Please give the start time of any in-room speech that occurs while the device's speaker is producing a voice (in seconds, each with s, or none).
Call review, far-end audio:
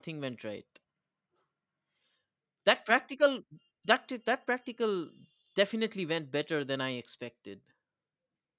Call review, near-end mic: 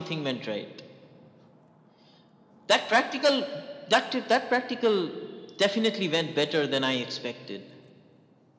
none